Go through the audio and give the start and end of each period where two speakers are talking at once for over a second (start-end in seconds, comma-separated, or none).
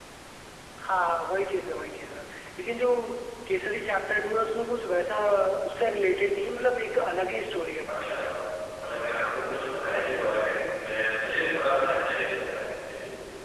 none